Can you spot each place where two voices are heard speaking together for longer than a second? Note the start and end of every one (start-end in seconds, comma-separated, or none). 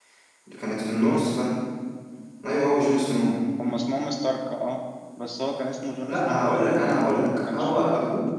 6.1-7.7